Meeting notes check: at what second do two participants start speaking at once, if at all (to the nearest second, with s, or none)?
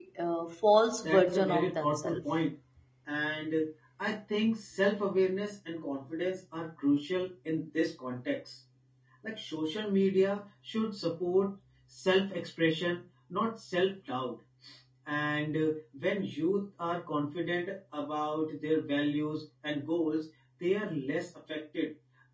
1 s